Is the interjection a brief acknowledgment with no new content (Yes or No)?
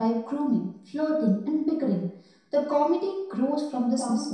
No